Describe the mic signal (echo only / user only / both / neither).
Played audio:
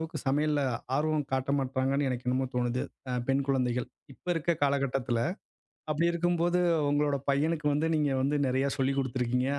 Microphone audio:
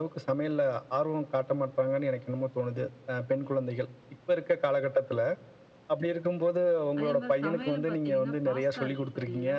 both